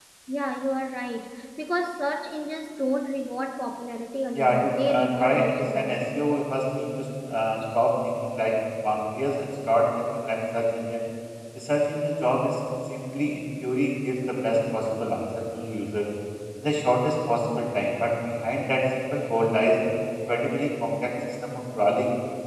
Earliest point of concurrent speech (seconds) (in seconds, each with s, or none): 4.3 s